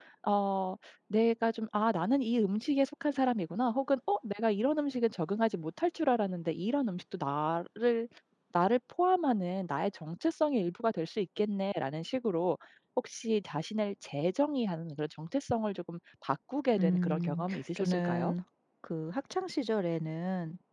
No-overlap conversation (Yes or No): No